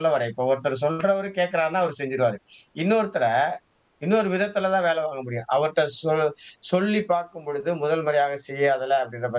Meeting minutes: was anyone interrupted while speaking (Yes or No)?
No